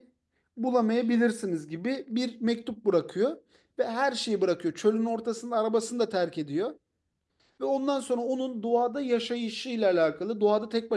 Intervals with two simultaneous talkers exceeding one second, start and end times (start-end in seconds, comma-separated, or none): none